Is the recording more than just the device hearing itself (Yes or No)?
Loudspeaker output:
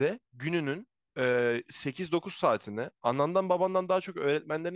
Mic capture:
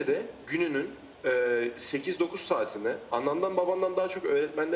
No